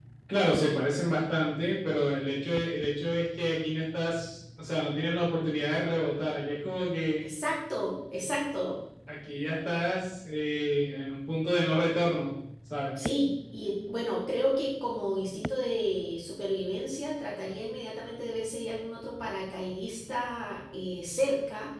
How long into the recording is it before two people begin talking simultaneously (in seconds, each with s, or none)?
none